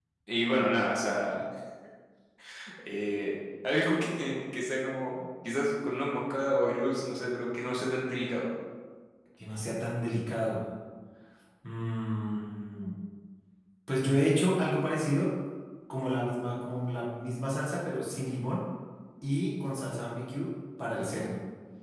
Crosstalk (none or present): none